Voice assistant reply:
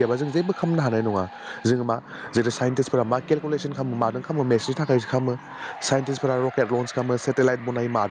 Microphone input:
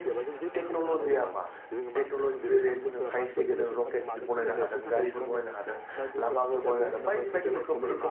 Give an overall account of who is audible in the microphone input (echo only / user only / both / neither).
both